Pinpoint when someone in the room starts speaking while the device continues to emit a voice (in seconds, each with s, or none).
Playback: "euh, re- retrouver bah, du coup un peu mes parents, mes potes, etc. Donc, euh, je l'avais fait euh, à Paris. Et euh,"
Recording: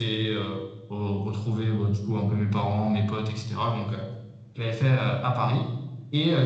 none